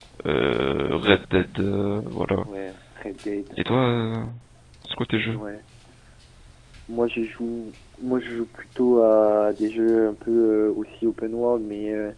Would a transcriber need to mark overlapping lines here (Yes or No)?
No